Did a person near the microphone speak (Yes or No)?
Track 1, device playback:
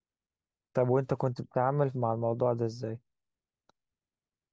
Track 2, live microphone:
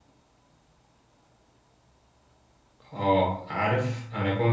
Yes